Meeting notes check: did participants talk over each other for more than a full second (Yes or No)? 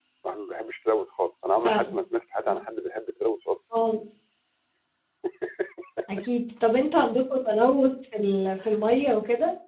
No